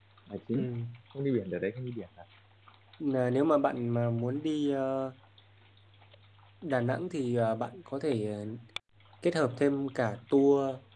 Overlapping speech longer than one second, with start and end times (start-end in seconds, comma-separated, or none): none